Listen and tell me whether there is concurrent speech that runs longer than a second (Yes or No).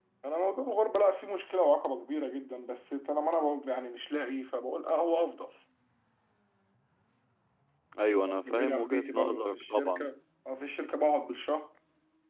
Yes